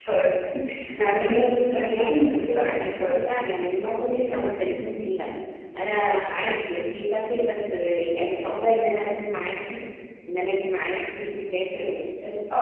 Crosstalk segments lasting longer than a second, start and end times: 1.9-3.1

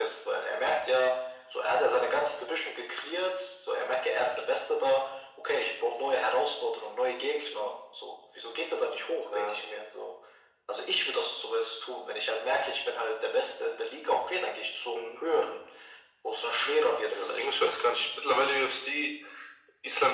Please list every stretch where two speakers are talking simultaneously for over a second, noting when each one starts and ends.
none

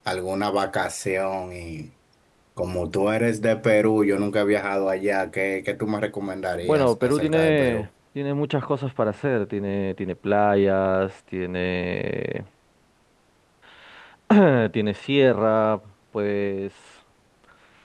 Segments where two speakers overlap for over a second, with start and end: 6.6-7.9

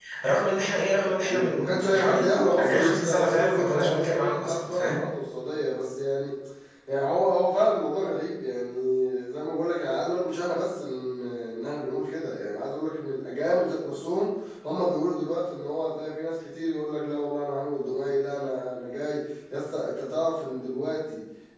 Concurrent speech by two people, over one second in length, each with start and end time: 1.3-5.0

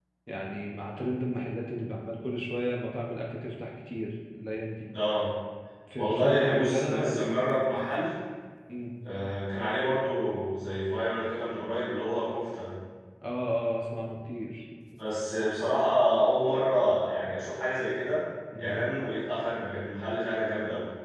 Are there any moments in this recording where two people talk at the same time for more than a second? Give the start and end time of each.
6.0-7.3

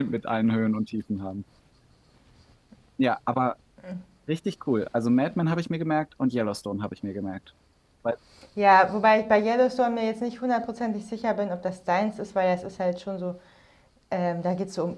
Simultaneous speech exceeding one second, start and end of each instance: none

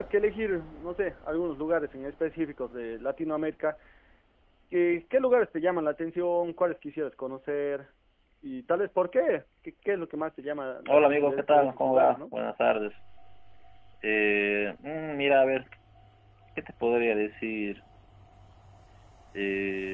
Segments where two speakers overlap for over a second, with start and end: 10.9-12.2

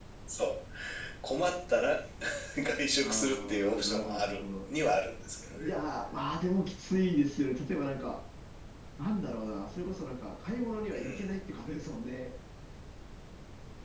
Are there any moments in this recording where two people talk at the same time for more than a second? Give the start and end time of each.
3.0-4.4

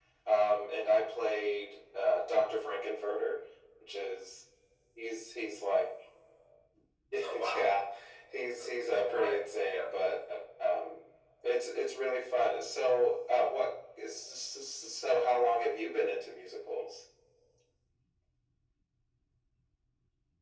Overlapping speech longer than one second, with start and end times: 8.6-9.9

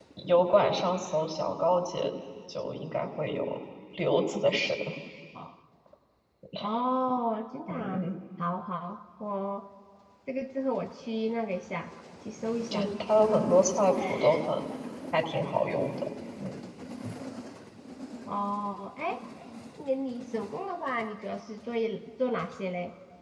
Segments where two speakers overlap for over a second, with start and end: none

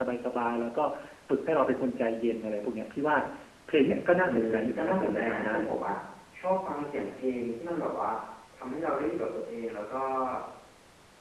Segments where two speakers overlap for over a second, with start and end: 4.2-5.5

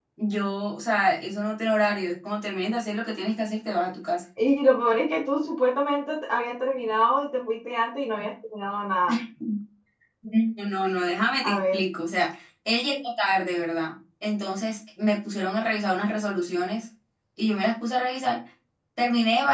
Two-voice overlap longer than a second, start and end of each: none

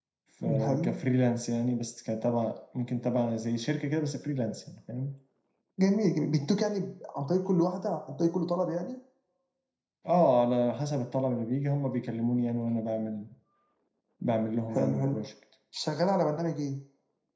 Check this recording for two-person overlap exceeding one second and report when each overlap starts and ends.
none

